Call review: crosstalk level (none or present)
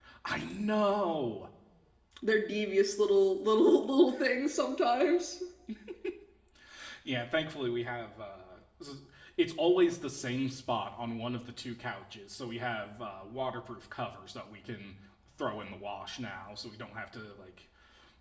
none